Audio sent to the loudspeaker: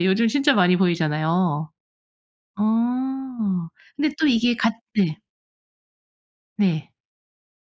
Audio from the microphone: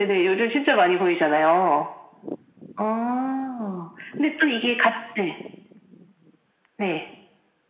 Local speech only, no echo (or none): none